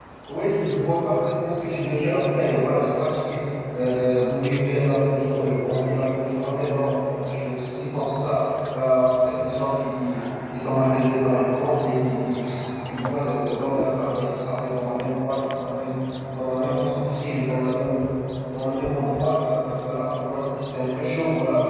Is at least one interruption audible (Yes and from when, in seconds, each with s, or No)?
No